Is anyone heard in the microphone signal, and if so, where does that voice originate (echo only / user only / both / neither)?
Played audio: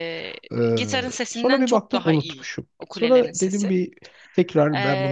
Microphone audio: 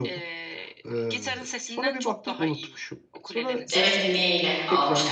both